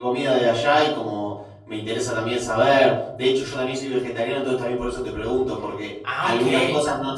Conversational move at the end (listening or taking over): listening